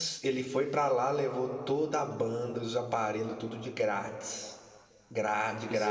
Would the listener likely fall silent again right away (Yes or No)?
Yes